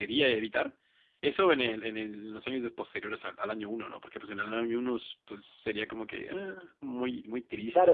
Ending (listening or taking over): taking over